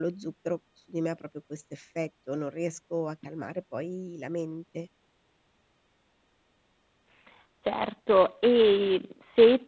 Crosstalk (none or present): none